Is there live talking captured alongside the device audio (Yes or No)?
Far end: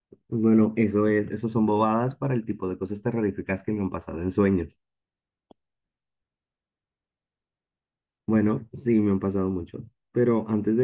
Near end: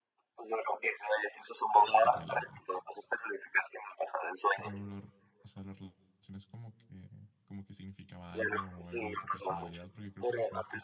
Yes